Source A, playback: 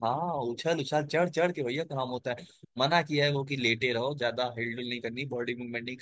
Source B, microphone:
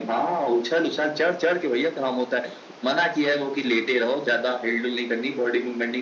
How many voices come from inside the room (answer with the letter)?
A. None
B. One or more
A